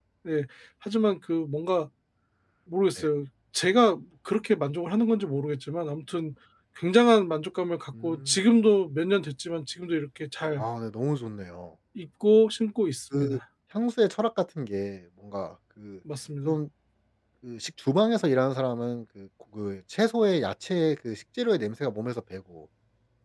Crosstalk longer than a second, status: none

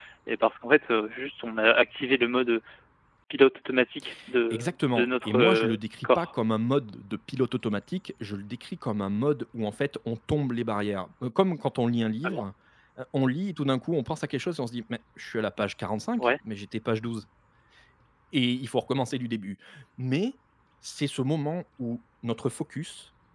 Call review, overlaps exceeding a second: present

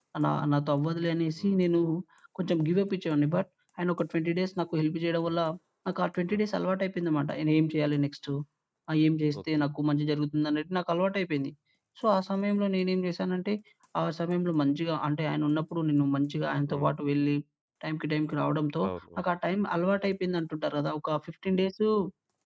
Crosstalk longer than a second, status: none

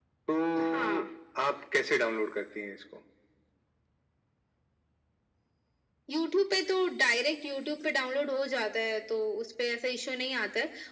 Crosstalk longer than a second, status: none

